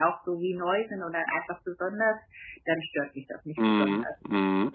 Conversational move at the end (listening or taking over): taking over